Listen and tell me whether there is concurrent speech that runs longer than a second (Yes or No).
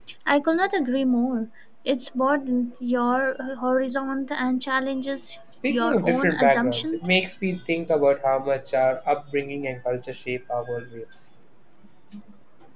Yes